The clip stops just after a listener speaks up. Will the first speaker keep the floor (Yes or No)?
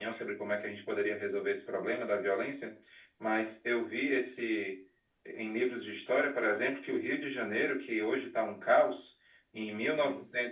Yes